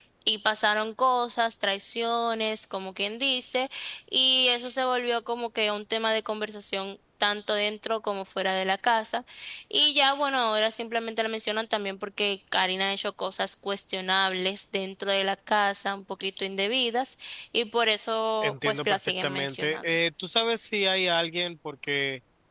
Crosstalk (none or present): present